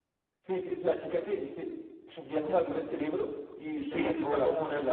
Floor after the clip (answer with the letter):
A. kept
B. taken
B